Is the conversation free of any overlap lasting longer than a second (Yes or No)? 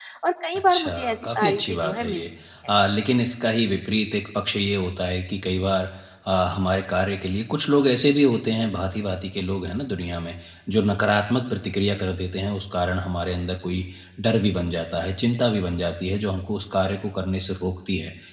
No